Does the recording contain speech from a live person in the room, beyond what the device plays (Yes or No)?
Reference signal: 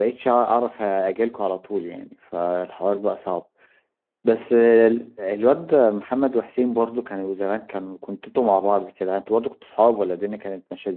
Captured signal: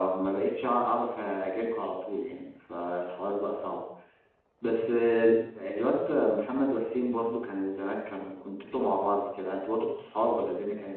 No